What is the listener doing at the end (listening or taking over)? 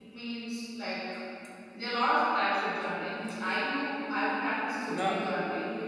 listening